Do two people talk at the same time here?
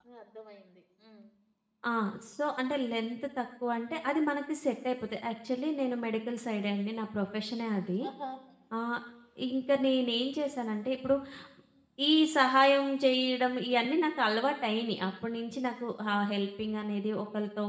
No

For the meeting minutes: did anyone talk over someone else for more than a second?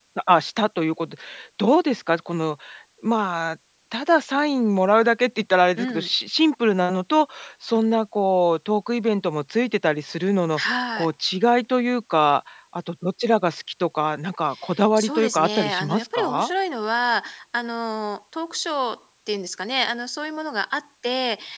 Yes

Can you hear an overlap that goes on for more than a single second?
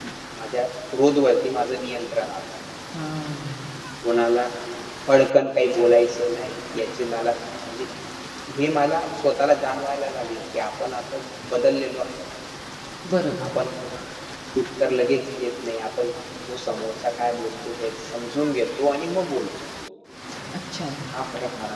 No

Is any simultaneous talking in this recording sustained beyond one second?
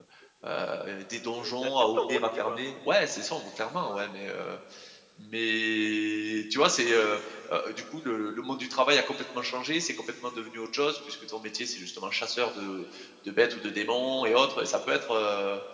Yes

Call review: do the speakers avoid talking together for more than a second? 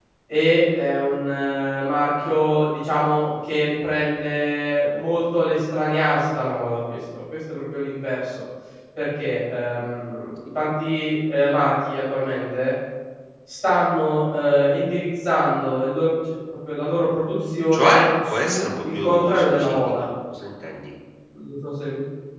No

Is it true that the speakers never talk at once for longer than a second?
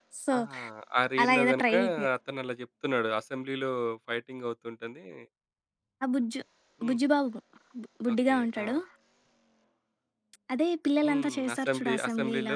No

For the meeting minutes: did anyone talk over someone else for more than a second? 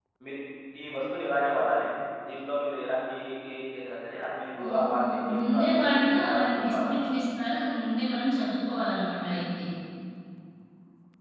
Yes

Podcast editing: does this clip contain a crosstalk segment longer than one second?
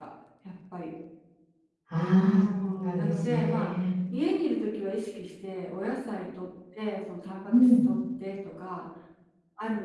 Yes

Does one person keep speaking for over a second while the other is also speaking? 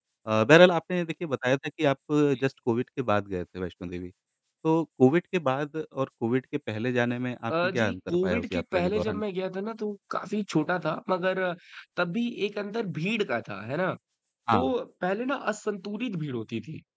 Yes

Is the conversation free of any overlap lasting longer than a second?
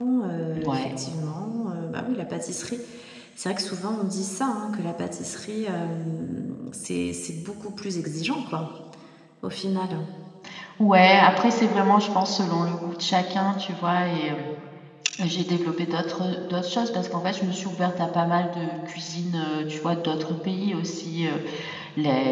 Yes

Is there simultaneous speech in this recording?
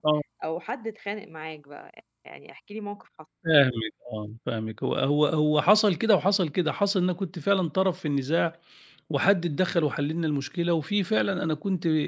No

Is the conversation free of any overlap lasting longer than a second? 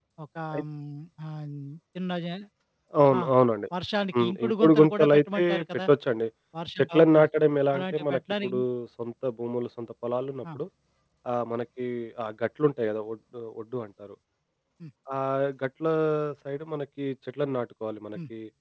No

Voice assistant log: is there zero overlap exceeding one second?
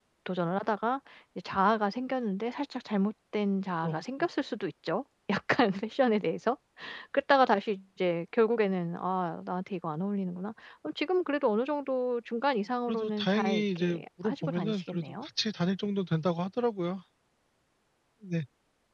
No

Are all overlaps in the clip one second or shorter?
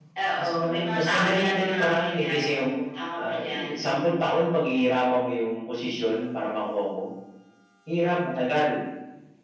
No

